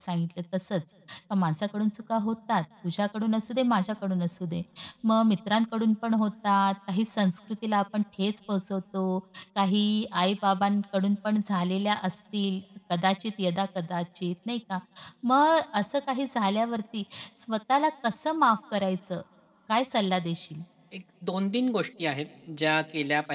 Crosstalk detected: No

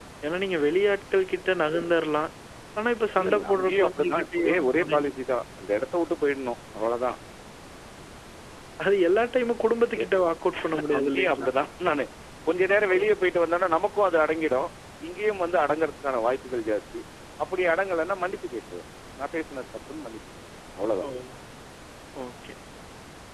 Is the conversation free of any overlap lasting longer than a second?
No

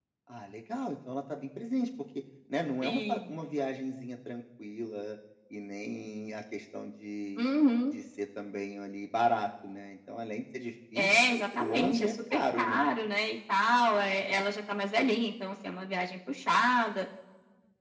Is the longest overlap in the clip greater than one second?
Yes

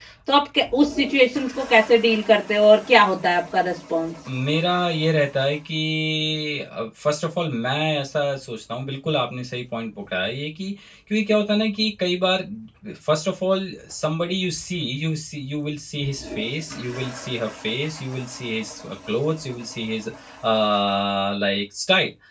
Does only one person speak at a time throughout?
Yes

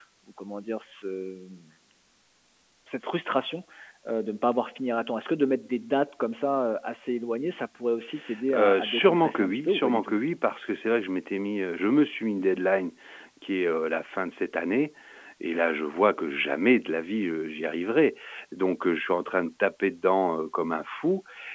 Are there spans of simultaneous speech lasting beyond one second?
Yes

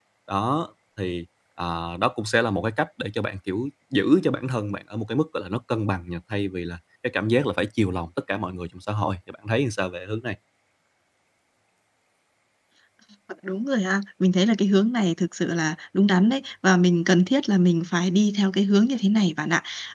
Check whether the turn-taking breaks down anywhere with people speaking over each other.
No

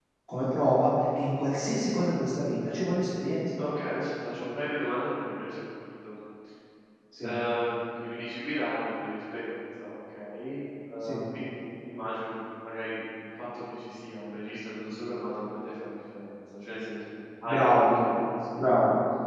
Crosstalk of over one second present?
No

